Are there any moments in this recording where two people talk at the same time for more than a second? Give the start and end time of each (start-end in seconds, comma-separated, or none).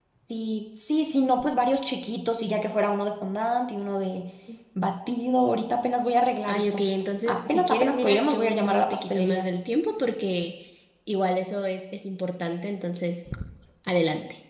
7.2-9.4